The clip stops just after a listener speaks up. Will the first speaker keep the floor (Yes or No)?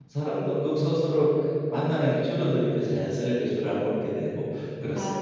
No